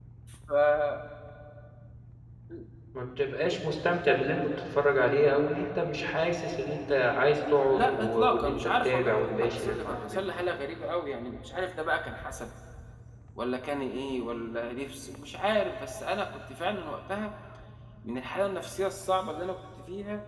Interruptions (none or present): present